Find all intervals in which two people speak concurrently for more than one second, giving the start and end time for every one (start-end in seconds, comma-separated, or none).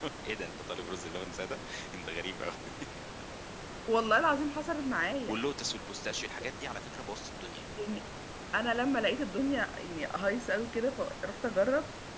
none